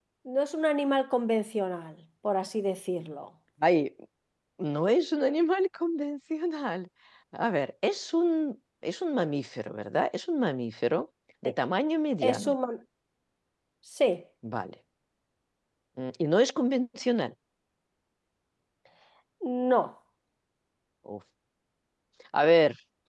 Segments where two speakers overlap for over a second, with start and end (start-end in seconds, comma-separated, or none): none